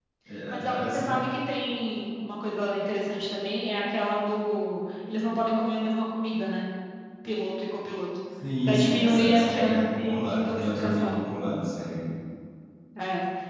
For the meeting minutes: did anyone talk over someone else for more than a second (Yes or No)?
Yes